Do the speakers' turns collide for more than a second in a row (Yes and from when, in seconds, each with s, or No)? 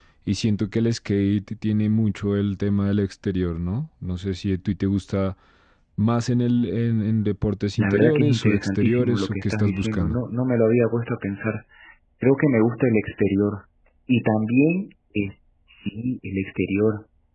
Yes, from 7.8 s